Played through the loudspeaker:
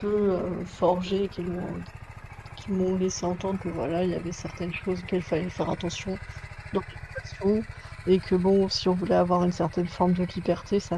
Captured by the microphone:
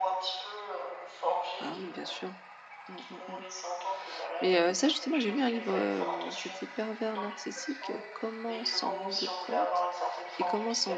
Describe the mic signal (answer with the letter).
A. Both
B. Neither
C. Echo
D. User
A